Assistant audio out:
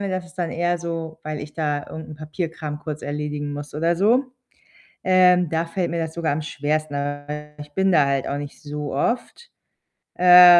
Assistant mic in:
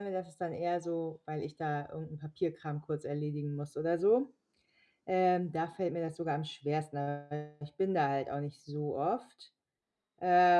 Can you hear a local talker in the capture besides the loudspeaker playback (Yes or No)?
No